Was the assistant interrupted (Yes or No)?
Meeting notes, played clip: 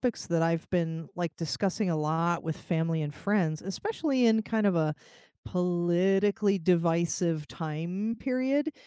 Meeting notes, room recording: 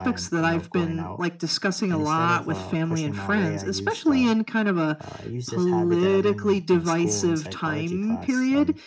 Yes